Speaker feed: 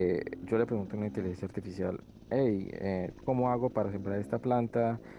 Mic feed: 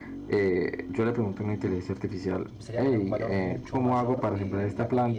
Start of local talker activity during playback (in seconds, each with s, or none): 2.5 s